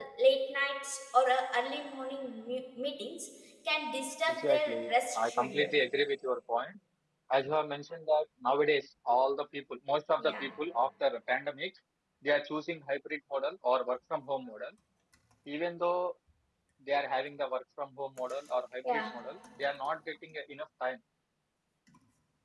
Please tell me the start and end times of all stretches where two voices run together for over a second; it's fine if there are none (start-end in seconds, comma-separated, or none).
4.3-5.7